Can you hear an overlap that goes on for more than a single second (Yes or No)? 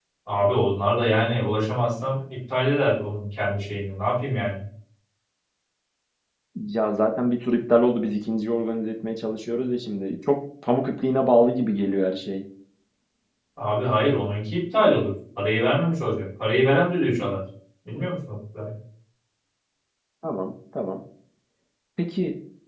No